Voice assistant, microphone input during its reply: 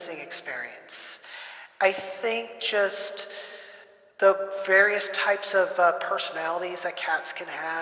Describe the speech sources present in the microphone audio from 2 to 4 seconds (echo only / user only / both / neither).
echo only